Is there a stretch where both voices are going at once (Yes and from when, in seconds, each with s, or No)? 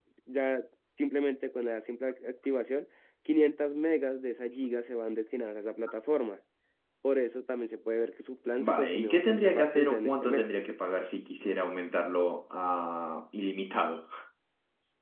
Yes, from 8.6 s